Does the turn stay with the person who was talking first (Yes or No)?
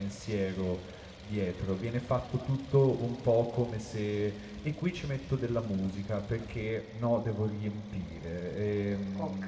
Yes